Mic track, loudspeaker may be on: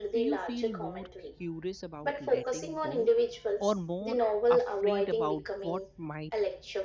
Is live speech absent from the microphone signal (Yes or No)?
No